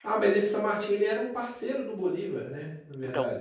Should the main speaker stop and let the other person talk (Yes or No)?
Yes